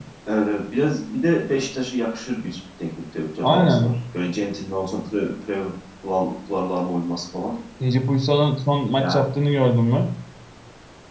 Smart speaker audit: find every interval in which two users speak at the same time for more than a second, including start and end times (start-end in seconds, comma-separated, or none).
none